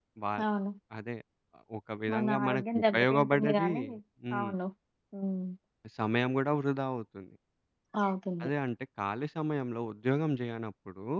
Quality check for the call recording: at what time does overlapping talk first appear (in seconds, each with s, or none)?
2.1 s